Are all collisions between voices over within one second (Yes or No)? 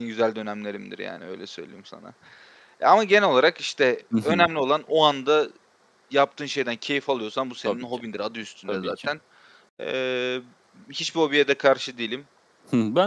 Yes